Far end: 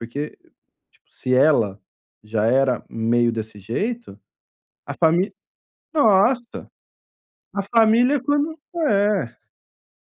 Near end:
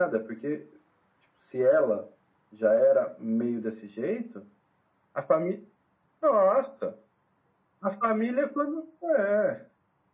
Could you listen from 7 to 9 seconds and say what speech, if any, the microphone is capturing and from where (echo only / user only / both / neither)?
echo only